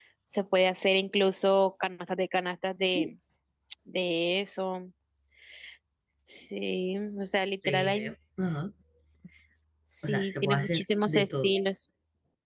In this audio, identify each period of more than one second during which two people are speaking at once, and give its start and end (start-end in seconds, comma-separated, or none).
10.1-11.5